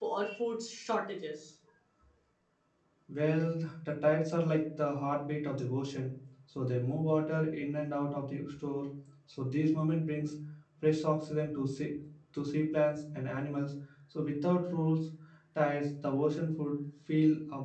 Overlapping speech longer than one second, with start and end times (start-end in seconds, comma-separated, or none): none